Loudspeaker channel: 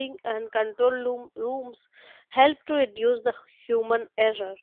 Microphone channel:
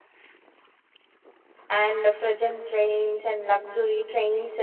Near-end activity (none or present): present